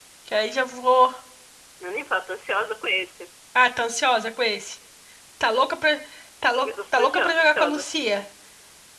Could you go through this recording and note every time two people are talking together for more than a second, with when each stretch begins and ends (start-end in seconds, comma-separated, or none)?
6.6-7.8